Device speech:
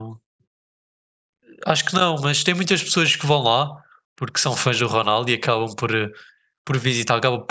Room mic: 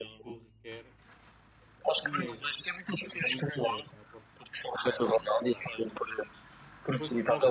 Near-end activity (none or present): present